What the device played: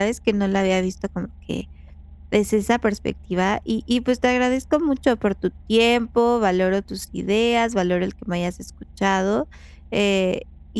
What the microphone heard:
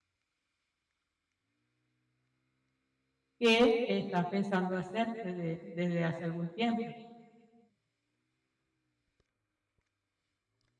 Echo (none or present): none